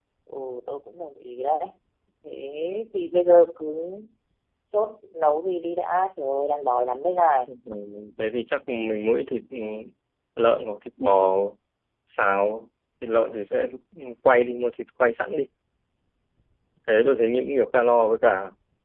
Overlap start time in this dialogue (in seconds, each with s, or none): none